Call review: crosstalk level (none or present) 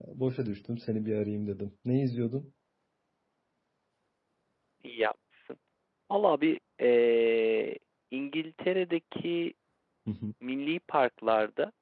none